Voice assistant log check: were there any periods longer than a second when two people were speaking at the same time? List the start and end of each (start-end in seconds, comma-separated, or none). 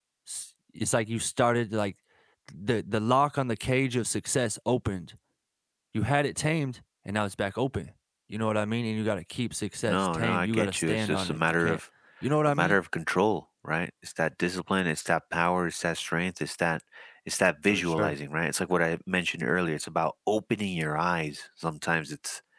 9.9-11.8